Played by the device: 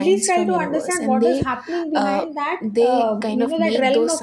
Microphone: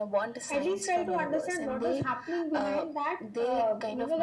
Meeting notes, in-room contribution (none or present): none